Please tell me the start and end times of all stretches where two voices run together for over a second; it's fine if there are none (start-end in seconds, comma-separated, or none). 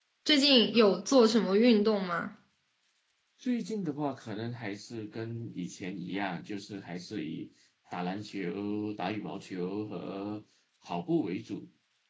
none